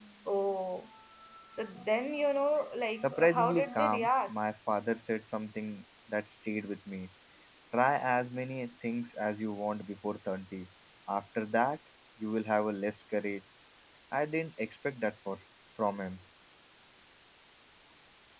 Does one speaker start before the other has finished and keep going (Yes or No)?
Yes